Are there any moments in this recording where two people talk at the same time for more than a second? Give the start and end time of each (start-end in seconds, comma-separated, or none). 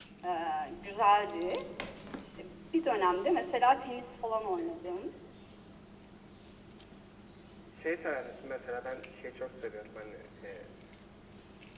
none